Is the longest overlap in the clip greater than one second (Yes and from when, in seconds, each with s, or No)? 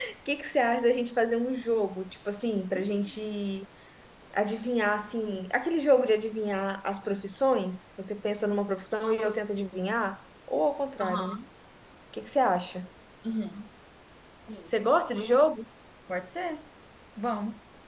No